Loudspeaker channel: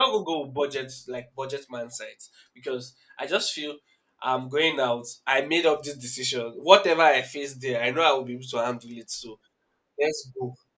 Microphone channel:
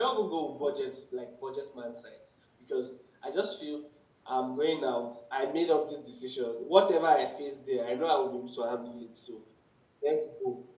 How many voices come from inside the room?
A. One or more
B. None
B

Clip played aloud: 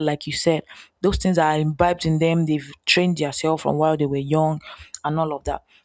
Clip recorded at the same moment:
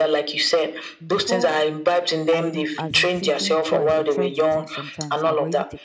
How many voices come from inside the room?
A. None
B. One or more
B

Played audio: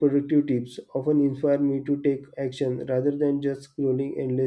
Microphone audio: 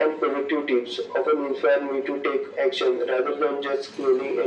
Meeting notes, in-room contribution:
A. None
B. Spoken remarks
A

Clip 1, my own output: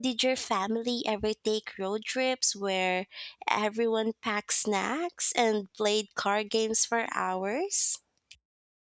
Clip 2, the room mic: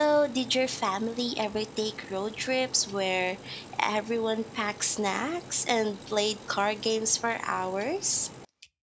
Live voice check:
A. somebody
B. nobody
B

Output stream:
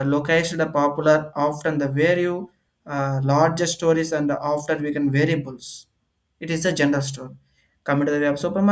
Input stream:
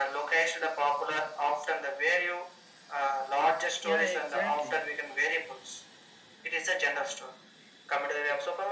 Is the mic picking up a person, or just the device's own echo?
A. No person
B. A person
B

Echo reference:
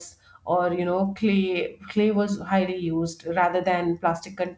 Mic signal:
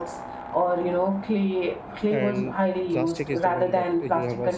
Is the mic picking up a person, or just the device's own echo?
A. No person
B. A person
B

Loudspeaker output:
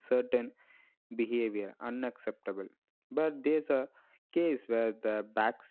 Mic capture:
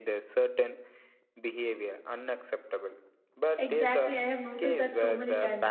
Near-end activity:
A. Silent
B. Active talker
B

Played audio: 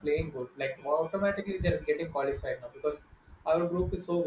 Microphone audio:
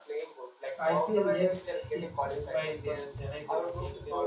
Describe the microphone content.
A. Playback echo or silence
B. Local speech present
B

